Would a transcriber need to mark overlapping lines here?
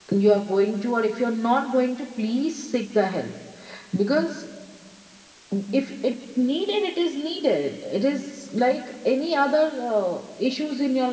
No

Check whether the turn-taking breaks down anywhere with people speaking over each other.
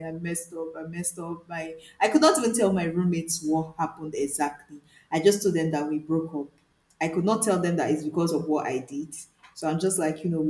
No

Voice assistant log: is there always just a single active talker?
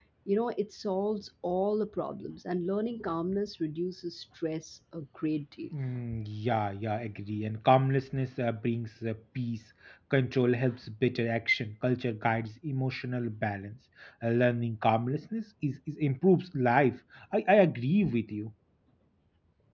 Yes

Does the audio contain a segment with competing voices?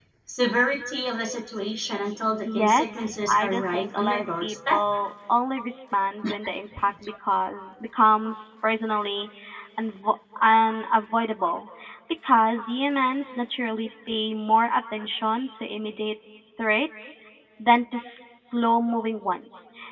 Yes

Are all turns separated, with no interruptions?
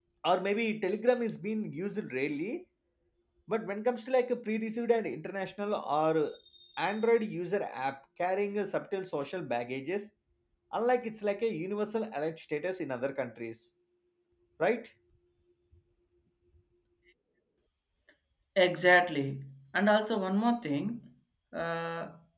Yes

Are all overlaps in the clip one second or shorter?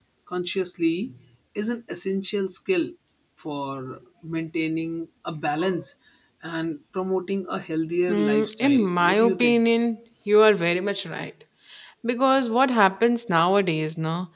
No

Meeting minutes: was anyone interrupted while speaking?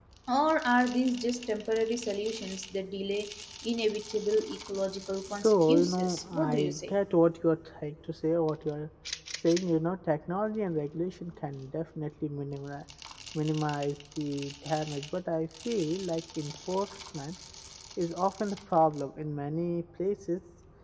Yes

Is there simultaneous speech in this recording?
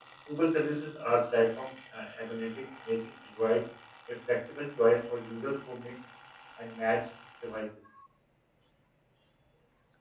No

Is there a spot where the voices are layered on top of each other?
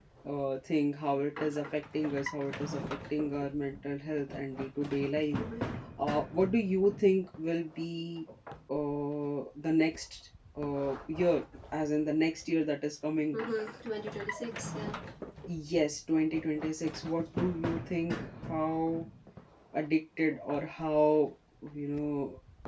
No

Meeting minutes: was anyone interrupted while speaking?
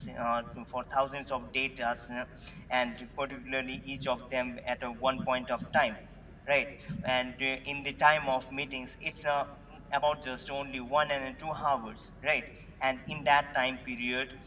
No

